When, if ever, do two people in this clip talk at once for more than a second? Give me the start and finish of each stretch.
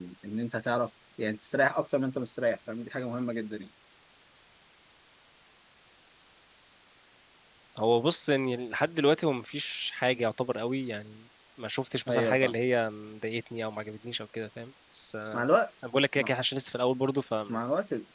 none

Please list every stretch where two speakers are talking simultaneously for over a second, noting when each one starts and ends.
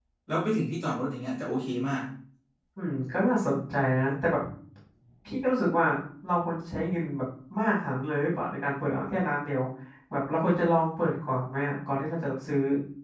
none

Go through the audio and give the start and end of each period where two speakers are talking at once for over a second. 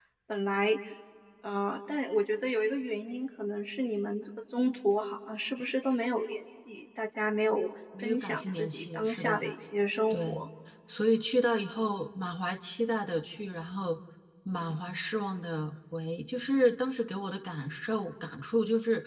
8.0-9.5

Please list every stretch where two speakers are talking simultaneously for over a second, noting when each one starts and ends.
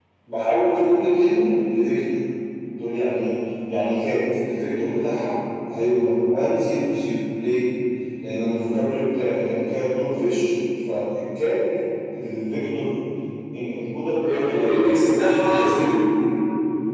14.2-15.8

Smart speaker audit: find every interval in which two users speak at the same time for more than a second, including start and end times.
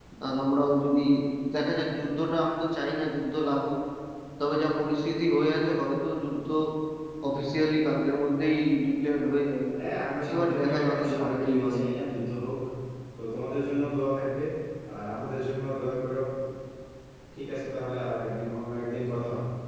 10.3-11.8

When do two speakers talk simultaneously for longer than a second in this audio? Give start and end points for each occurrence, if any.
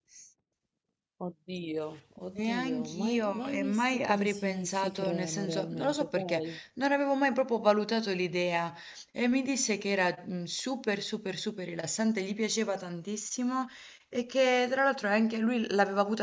2.4-6.6

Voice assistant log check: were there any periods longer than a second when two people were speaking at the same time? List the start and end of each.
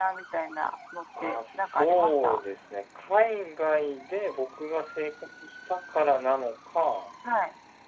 1.2-2.4

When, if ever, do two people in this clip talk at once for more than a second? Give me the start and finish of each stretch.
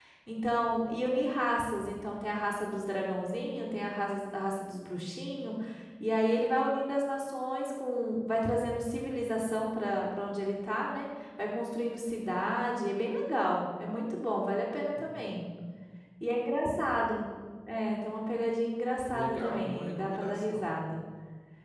19.1-20.7

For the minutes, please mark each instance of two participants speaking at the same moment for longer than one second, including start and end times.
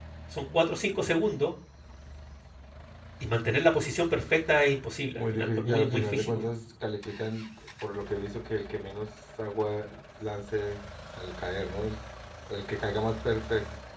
5.2-6.4

